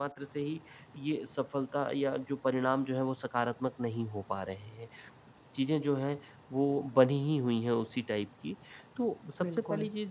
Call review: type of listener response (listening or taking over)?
listening